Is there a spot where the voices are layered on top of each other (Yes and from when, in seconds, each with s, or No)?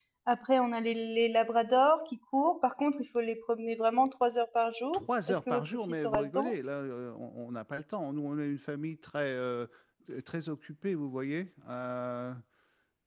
Yes, from 4.9 s